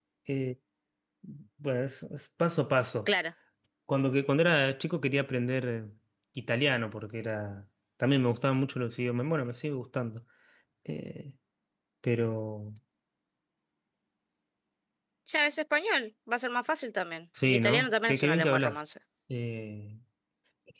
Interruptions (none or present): present